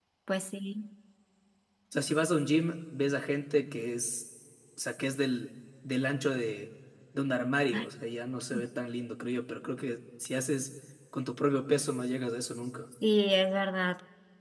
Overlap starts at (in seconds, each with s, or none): none